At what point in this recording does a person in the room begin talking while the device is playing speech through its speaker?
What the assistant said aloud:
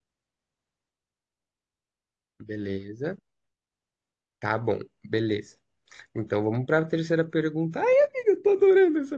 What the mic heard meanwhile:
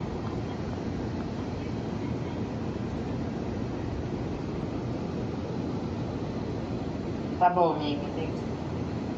7.4 s

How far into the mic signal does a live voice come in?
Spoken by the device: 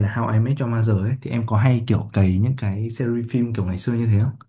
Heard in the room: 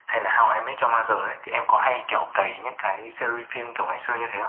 none

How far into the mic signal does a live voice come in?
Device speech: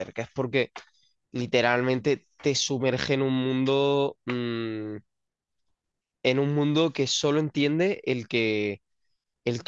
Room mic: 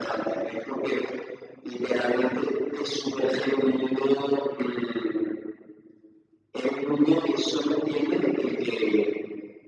none

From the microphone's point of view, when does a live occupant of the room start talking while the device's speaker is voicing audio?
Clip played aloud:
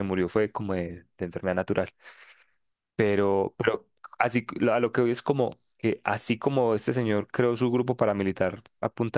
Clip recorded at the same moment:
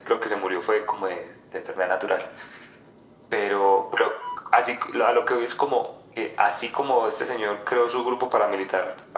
none

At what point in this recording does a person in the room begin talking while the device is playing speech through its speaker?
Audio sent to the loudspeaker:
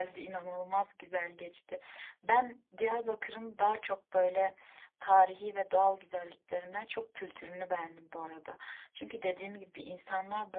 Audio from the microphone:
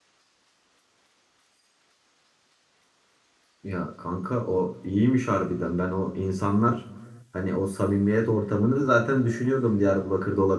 3.6 s

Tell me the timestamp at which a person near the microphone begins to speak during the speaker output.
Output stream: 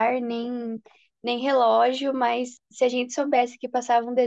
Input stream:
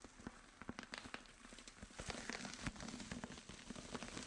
none

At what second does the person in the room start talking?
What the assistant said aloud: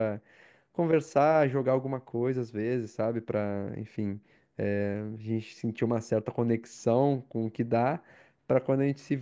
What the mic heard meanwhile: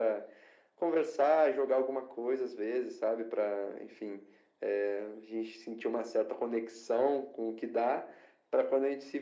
none

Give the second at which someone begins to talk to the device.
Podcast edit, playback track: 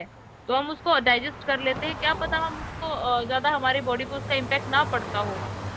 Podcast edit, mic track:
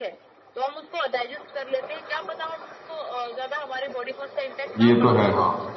4.8 s

